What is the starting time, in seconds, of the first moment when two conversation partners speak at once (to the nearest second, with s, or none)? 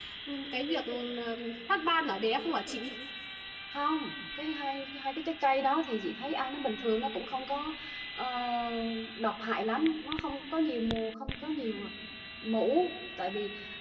none